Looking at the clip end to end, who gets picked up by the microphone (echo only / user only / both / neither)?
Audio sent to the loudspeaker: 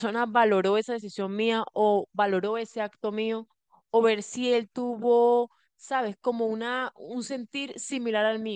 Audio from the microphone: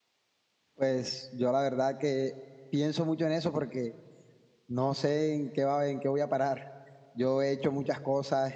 user only